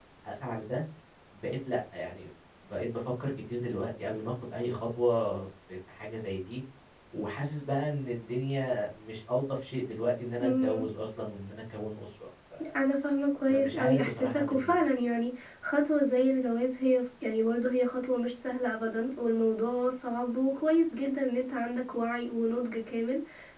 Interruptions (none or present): present